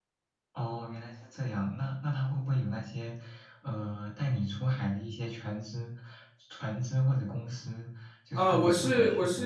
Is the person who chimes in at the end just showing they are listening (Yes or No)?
No